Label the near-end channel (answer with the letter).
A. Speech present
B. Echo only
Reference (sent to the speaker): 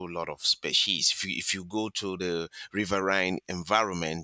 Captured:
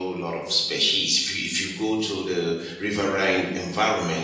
B